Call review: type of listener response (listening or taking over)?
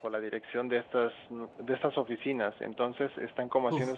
listening